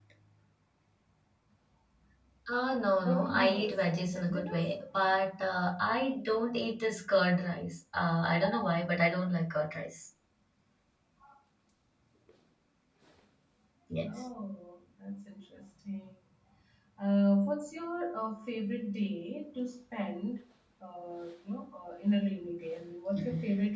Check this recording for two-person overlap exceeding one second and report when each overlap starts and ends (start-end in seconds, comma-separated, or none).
3.0-4.8